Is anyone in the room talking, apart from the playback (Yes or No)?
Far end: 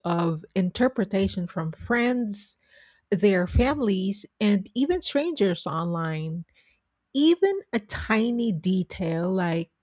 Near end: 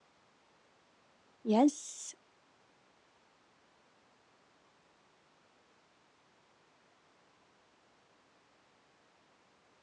Yes